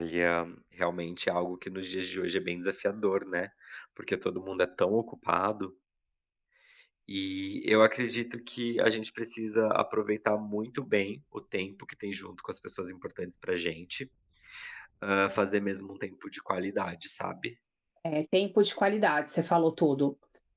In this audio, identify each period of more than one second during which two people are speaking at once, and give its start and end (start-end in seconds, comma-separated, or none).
none